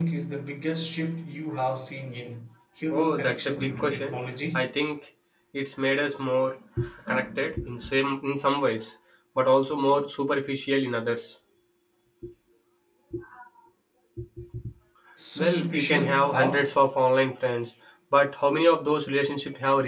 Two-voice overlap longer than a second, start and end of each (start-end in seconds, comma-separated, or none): 2.9-4.2, 15.4-16.7